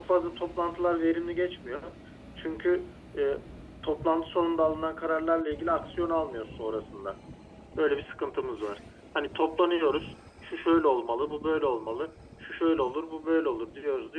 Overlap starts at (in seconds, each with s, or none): none